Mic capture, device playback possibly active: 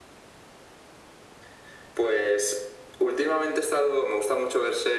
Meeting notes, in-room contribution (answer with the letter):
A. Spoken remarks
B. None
B